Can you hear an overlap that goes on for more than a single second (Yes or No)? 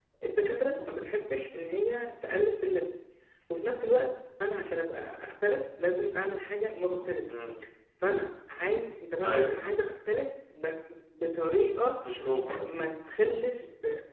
No